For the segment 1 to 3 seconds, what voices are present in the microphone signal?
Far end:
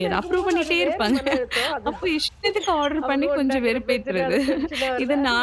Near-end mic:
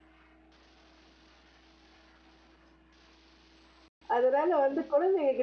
neither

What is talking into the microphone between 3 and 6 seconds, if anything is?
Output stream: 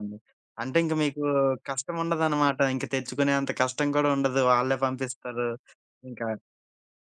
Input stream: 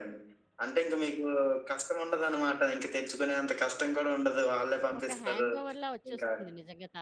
both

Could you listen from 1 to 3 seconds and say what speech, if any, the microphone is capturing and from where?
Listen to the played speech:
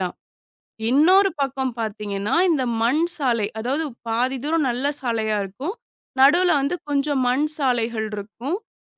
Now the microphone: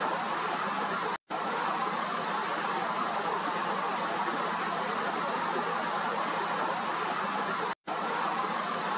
neither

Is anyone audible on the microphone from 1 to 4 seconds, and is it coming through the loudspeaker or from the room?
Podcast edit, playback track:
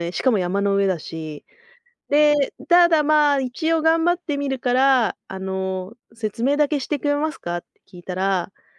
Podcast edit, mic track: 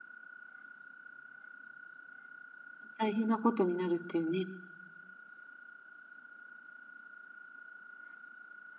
user only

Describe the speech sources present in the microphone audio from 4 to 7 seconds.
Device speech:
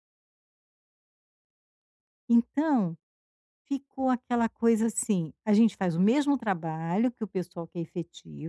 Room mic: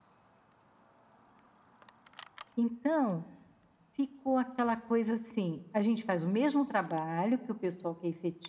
echo only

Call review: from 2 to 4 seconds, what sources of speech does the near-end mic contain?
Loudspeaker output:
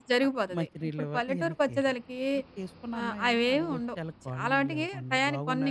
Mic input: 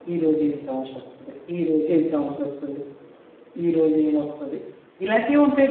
user only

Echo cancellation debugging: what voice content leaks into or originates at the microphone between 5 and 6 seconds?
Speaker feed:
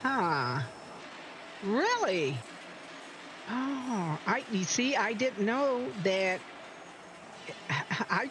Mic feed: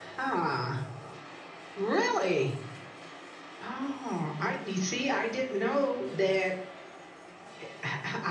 echo only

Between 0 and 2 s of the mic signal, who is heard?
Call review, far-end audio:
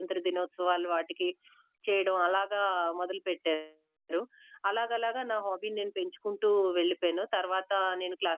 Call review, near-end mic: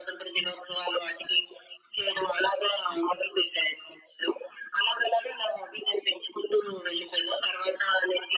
echo only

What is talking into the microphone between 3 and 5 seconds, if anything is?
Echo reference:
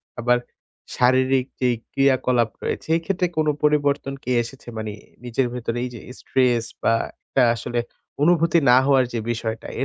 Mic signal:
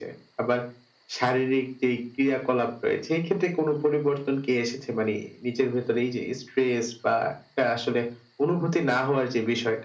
echo only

